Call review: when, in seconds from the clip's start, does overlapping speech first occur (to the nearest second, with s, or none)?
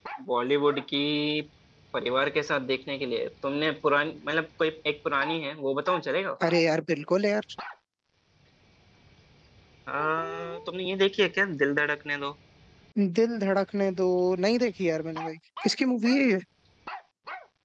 none